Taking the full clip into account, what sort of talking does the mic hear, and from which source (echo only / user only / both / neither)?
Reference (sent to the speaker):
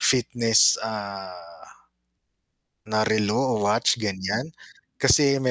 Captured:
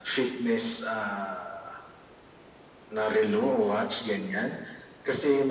echo only